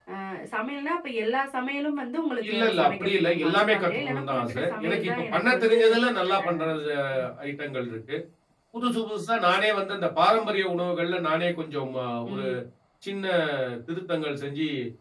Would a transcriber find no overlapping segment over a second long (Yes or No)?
No